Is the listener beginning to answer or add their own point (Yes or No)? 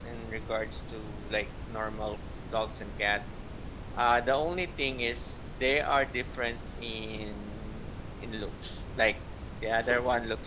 No